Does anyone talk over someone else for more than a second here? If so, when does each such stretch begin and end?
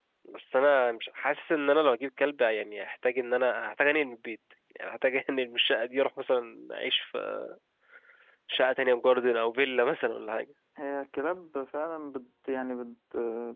none

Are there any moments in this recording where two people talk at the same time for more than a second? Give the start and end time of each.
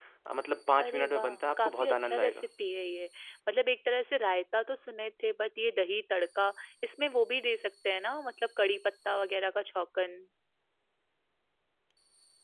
0.8-2.4

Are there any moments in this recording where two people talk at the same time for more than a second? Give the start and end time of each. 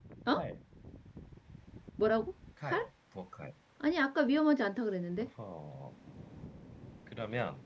none

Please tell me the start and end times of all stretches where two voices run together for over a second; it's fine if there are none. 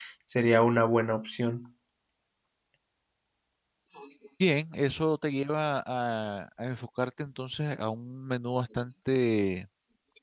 none

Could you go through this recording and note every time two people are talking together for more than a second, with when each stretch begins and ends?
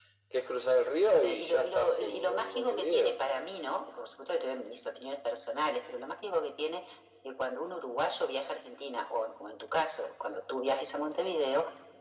1.2-3.2

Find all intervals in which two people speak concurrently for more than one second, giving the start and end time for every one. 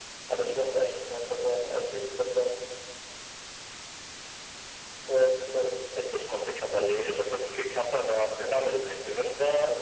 none

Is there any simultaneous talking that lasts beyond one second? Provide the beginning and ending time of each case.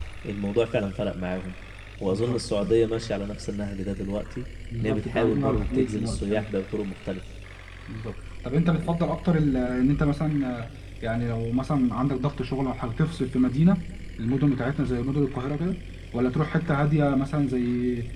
4.8-6.5

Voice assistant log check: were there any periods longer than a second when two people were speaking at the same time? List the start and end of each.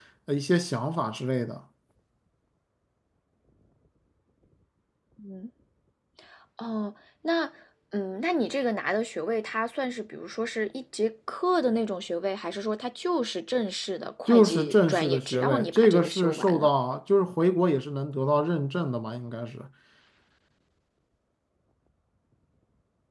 14.3-16.7

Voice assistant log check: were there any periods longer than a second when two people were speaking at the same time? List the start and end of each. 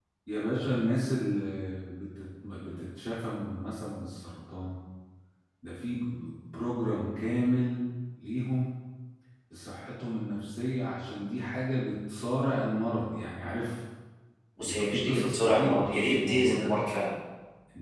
14.6-16.7

